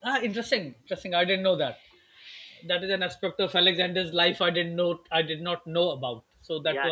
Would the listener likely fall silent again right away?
No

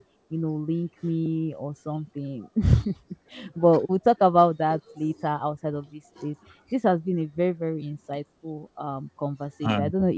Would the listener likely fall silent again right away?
Yes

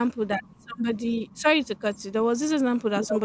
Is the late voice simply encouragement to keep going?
Yes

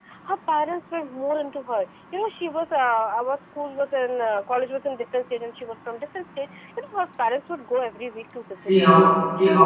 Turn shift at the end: Yes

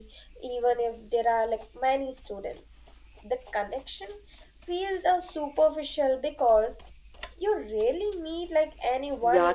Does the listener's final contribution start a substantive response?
Yes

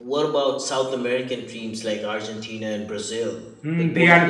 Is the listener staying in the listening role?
No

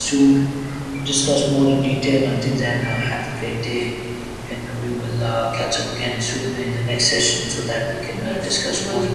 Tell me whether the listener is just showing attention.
No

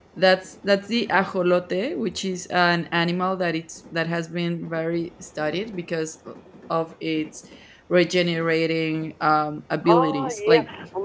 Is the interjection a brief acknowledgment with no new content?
No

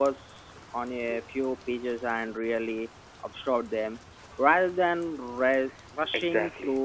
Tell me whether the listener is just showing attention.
No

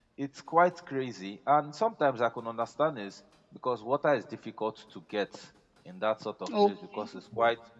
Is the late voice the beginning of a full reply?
No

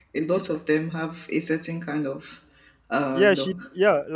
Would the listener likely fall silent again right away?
No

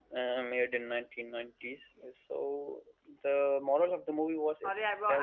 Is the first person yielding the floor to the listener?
Yes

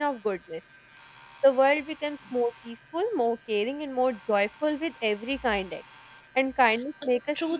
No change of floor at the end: No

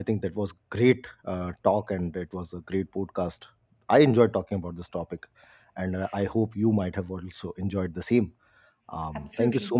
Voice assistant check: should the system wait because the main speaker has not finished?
Yes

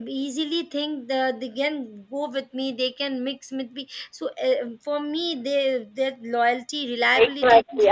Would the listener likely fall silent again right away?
No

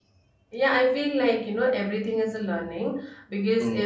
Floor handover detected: No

